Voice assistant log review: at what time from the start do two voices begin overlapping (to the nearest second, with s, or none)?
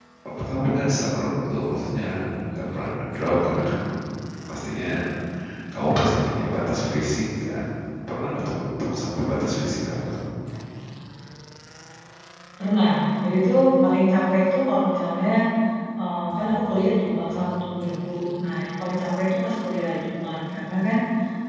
none